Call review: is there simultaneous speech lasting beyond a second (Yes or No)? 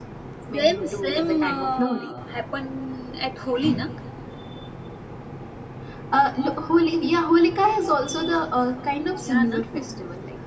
Yes